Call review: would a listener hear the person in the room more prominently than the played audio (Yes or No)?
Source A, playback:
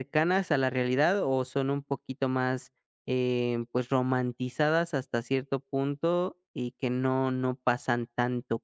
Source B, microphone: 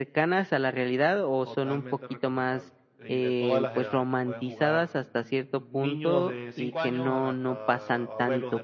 No